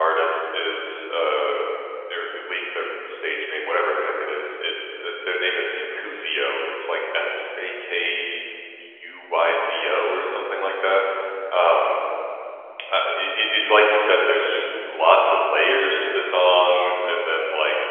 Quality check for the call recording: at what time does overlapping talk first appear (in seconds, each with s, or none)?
none